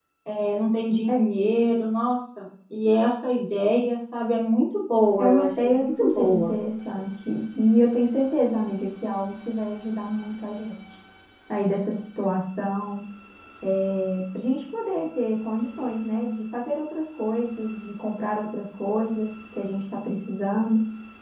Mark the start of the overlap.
5.2 s

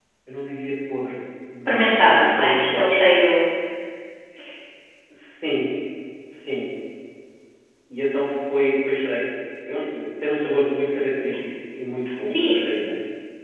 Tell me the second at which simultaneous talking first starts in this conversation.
1.7 s

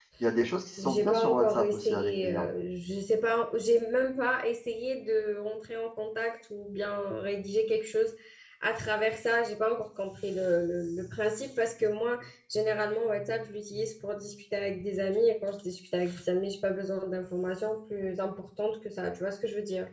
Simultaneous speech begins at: 0.8 s

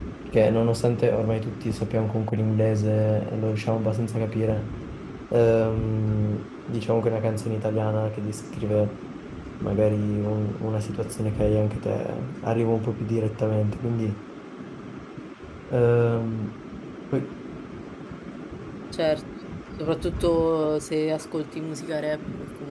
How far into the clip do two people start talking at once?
none

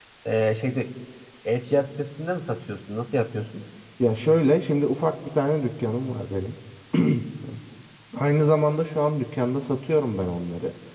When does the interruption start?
none

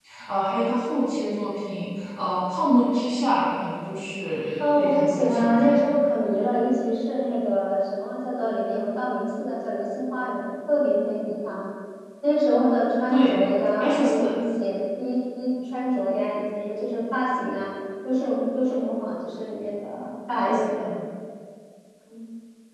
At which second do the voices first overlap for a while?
4.6 s

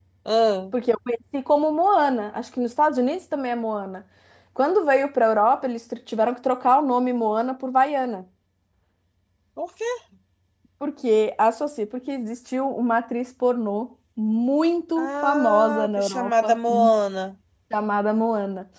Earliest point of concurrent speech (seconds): 15.0 s

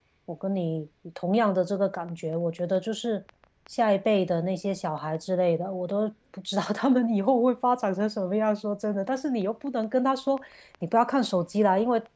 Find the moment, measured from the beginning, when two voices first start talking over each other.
none

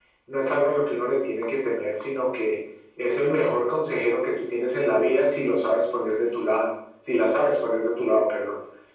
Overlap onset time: none

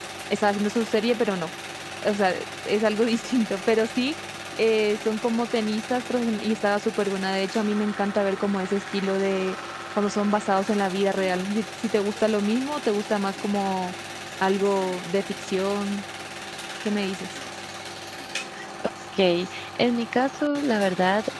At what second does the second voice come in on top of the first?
none

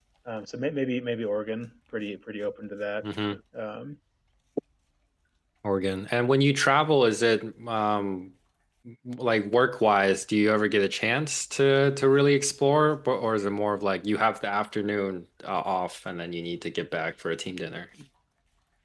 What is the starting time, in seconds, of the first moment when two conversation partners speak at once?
none

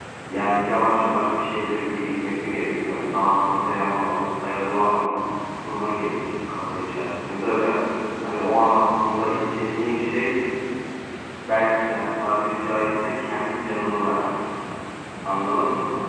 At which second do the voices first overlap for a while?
none

